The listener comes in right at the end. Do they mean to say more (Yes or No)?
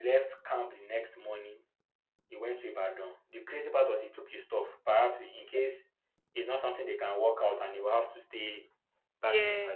No